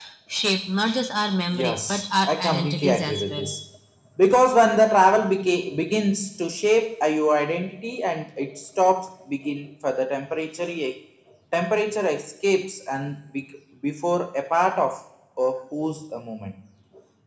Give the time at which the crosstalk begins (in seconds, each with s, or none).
1.5 s